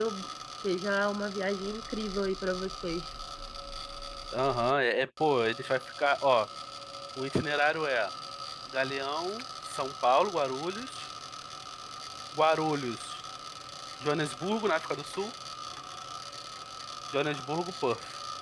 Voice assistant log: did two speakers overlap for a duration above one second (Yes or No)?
No